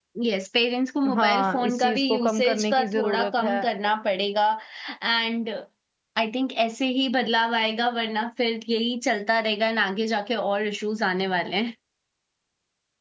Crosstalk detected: Yes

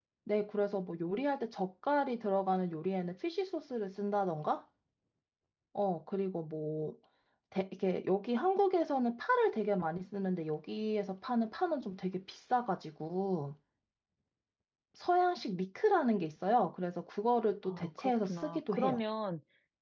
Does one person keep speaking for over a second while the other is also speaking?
Yes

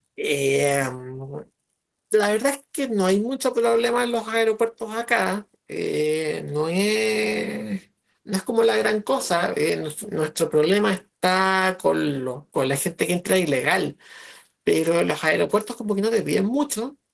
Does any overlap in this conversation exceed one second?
No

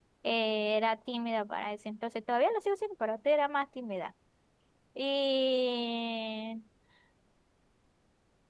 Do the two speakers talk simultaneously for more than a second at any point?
No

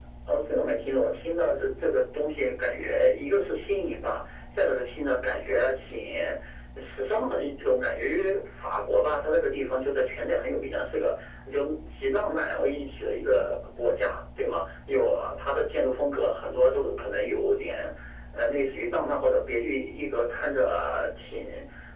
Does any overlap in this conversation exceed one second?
No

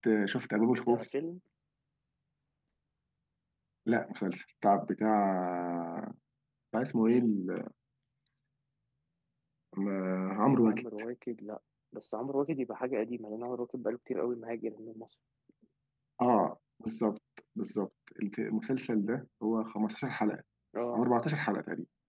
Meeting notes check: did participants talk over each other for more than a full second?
No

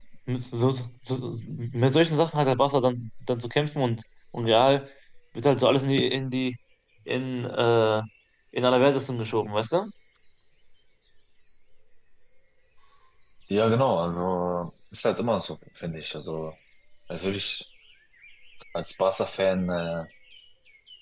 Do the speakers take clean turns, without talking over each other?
Yes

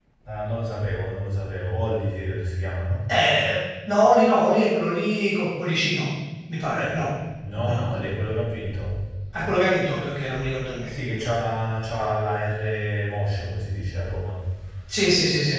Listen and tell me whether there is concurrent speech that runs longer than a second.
No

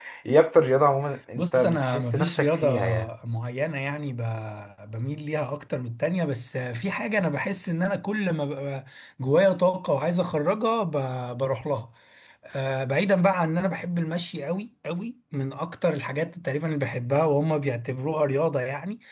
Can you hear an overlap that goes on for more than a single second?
Yes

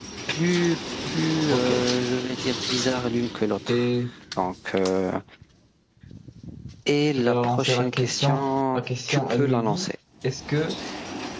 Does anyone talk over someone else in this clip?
Yes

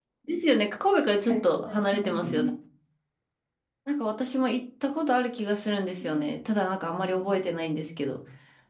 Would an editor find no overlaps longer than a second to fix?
No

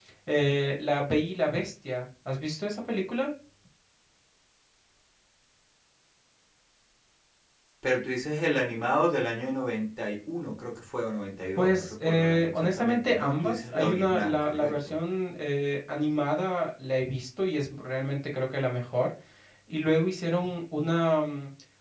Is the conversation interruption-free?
No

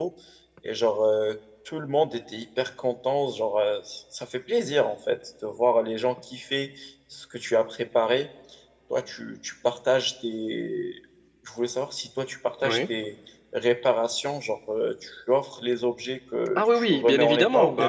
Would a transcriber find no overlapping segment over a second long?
No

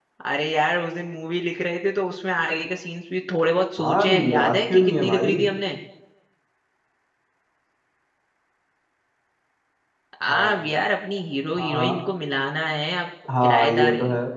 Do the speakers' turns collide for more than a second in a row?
Yes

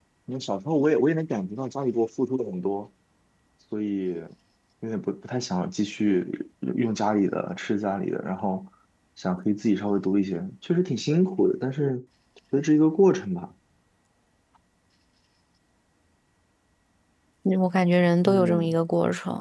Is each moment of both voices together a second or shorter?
Yes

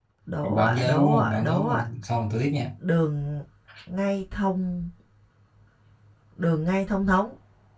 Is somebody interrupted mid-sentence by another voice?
Yes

